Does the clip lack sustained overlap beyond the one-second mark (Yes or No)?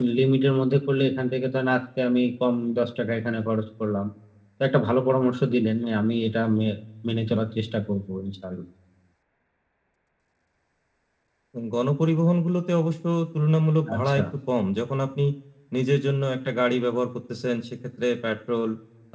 Yes